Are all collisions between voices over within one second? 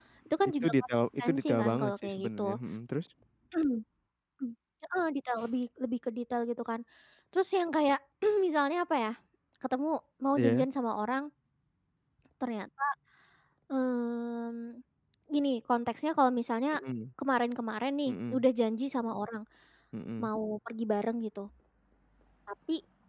No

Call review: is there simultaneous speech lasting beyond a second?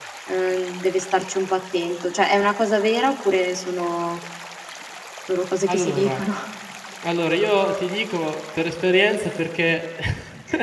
No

